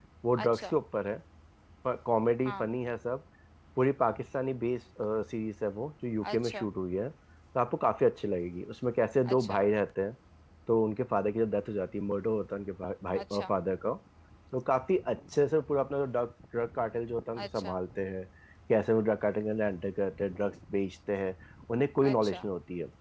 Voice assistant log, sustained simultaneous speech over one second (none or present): none